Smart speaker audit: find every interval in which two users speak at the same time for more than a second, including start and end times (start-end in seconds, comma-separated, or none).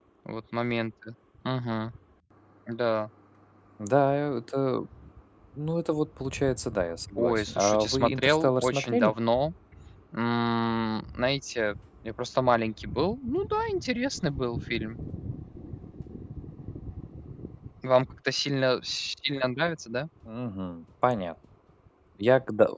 7.2-9.2